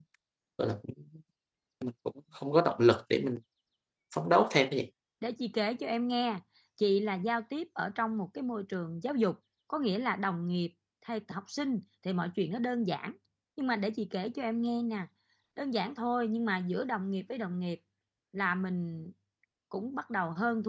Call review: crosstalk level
none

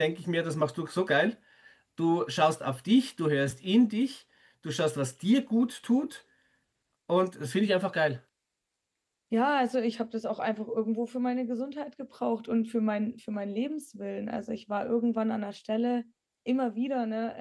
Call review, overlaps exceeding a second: none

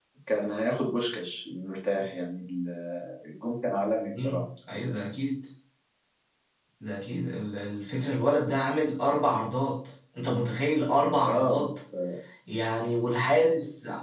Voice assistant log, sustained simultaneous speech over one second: none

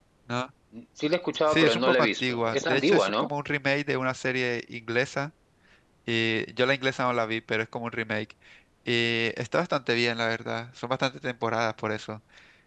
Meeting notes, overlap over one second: present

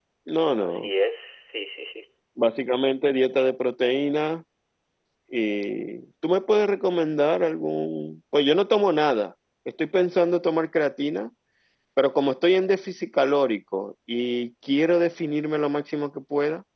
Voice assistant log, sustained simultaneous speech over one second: none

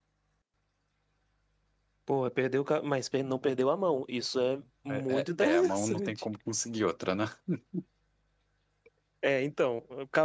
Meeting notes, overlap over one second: present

